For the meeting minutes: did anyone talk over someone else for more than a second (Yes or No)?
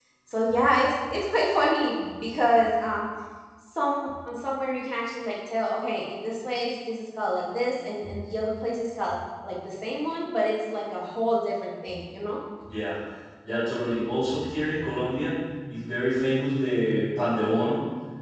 No